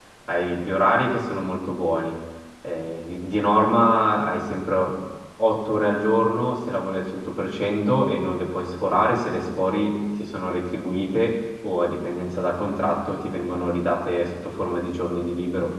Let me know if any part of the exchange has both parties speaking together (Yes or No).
No